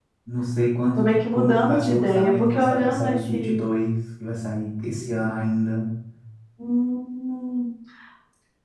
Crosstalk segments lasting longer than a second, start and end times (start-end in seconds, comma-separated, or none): 1.0-3.6